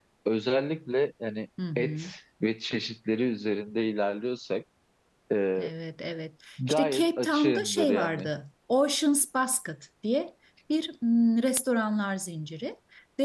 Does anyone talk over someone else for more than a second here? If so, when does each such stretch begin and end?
6.7-8.3

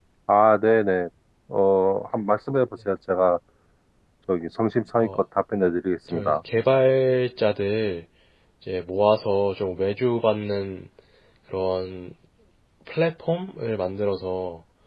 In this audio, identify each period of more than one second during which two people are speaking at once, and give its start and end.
none

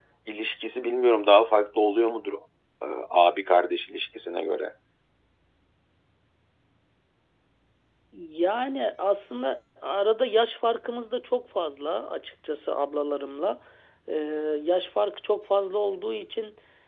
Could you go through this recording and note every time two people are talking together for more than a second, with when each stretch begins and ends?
none

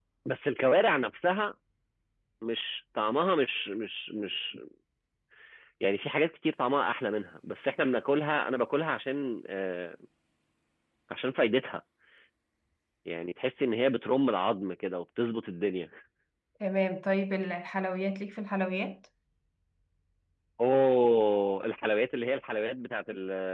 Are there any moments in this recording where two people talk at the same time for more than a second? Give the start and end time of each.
none

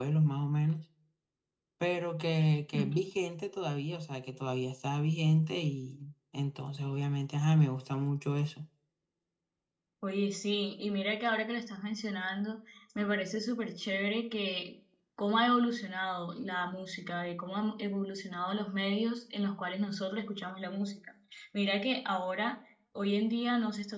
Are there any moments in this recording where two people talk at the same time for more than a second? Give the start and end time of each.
none

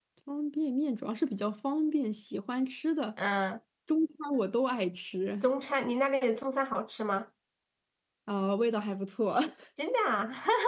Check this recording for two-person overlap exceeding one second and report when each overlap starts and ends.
none

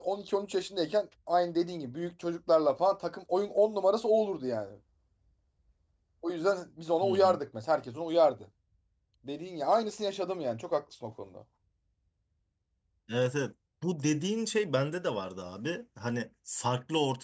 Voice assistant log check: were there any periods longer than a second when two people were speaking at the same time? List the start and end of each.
none

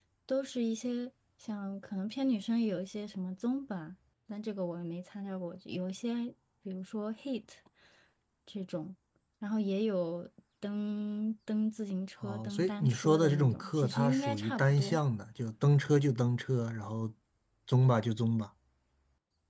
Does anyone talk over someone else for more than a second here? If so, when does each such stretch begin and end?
12.2-15.0

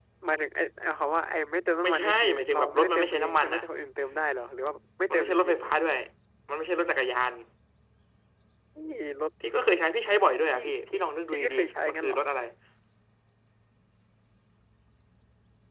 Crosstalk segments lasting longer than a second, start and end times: 1.8-3.6, 10.6-12.2

